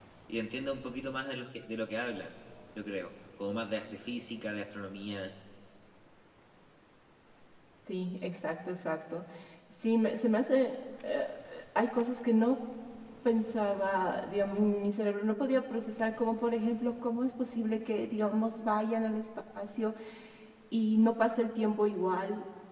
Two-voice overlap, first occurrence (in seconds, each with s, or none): none